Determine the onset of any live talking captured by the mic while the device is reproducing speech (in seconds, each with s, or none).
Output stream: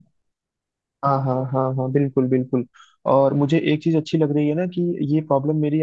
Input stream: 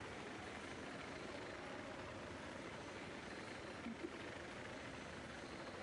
none